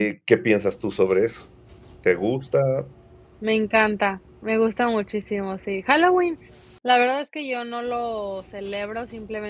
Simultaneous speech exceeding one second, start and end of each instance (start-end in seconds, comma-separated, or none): none